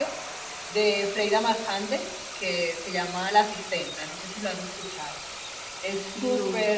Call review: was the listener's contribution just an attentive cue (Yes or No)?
Yes